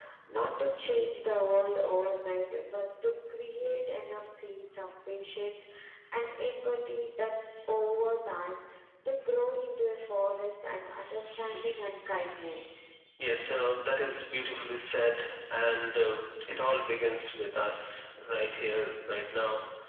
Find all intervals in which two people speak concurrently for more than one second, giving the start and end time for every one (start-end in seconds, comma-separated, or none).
none